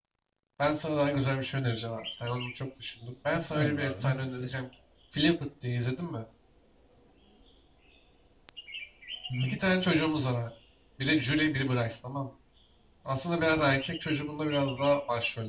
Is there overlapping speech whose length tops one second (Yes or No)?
Yes